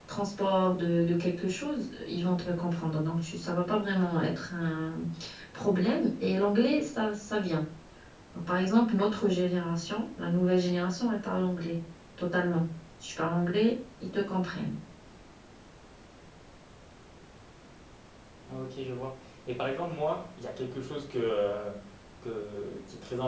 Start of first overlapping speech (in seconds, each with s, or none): none